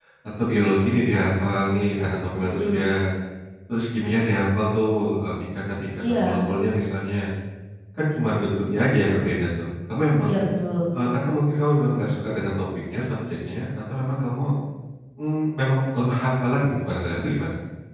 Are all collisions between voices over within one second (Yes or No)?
Yes